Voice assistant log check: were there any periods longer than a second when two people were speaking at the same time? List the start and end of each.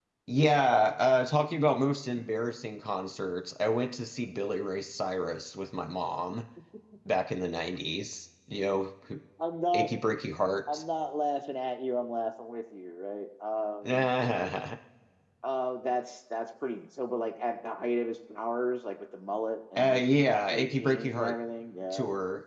19.8-21.3

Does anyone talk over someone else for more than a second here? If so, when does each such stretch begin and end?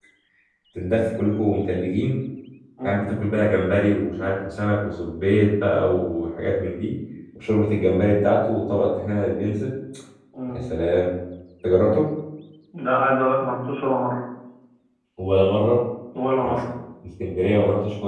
none

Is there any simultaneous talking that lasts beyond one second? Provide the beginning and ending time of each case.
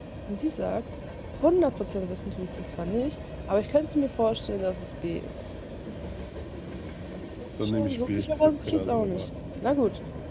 7.6-9.3

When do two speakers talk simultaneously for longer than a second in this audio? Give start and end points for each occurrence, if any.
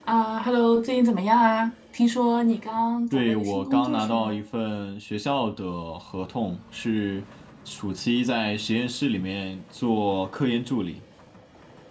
3.1-4.4

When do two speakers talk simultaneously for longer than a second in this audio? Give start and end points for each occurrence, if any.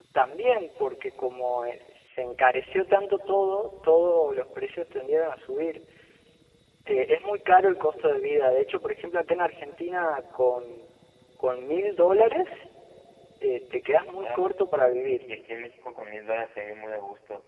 none

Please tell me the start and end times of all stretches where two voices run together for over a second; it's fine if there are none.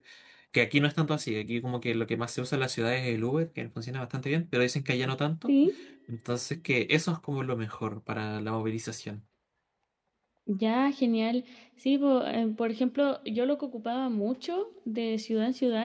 none

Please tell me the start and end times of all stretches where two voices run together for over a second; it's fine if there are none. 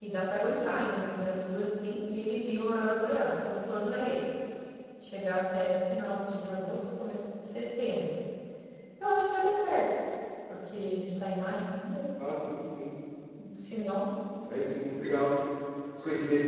none

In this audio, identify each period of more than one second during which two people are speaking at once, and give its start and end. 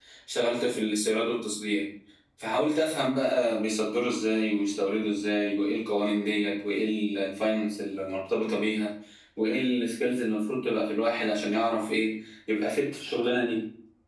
none

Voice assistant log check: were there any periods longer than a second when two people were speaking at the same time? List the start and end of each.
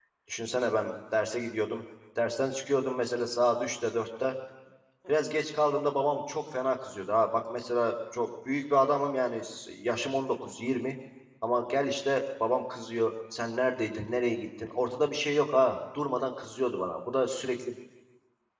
none

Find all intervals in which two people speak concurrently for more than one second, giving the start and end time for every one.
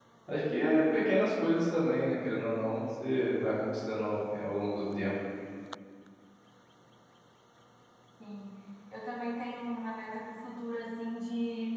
none

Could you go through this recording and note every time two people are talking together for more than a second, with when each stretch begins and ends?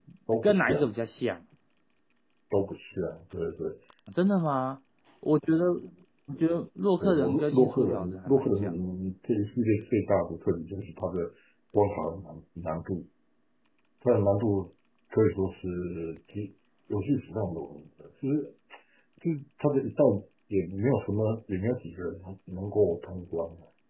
7.0-8.8

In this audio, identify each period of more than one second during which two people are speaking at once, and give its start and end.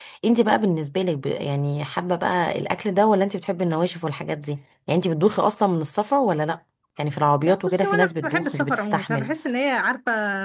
7.4-9.3

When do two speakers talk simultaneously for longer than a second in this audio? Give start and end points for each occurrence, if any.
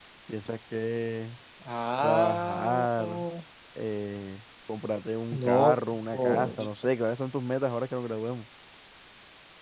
2.0-3.2

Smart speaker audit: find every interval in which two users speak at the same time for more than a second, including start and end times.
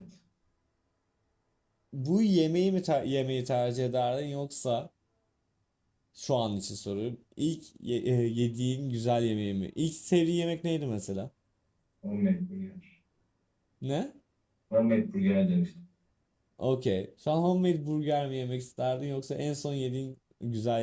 none

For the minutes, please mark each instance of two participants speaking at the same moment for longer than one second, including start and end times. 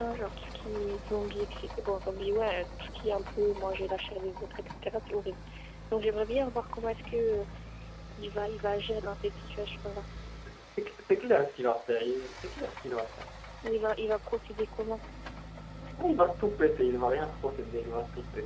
none

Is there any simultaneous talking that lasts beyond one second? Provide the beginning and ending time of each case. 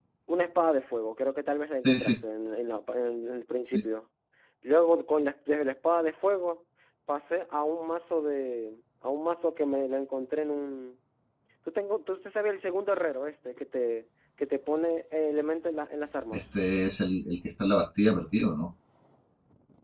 none

